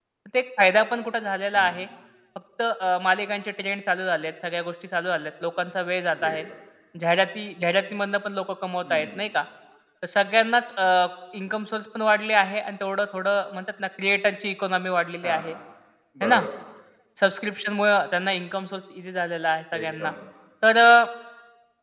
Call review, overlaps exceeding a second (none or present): none